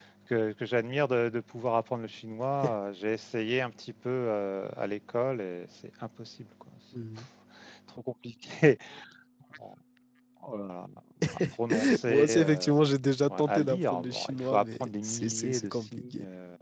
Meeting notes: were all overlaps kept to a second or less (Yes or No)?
No